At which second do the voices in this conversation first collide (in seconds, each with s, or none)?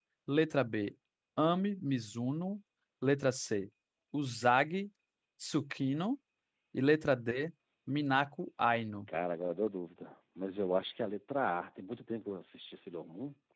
none